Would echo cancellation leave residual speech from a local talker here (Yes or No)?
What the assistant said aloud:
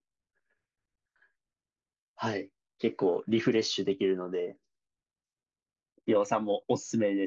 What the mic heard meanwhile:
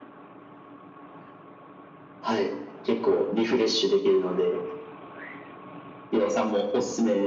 No